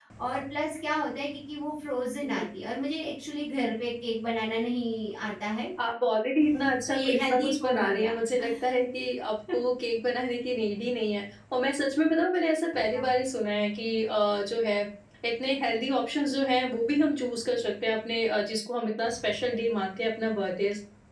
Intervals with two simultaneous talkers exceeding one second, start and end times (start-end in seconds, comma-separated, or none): 6.9-8.1